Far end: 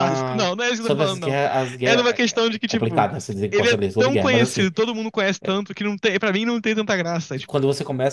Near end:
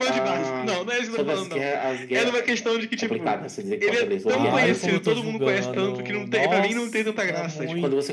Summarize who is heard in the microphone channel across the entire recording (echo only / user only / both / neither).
both